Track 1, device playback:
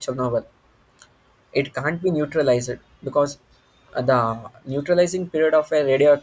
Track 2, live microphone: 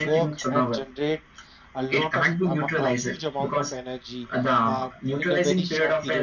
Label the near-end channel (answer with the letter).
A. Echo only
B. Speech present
B